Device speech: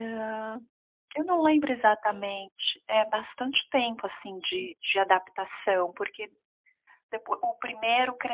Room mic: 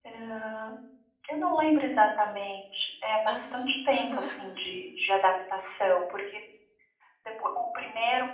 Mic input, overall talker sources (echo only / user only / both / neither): both